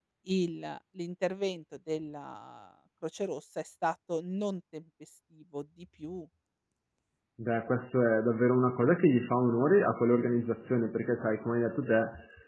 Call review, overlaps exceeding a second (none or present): none